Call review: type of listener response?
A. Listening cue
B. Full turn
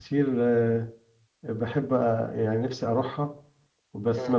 B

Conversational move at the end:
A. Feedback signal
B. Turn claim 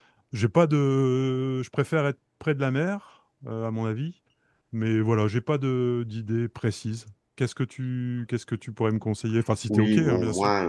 B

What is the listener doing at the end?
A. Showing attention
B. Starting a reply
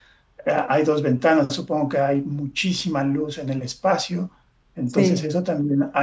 A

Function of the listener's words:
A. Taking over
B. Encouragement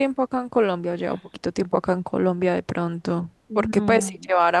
B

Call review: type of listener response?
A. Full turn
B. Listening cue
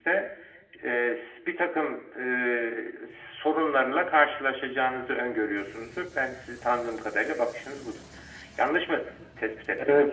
A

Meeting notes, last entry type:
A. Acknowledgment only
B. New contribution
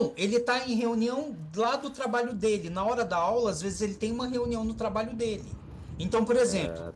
A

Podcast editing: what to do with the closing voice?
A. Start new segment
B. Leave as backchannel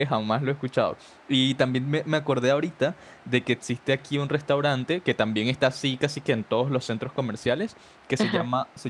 B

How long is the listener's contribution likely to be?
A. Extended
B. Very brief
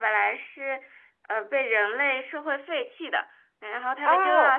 B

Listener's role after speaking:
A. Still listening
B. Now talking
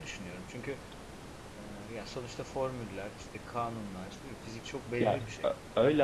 B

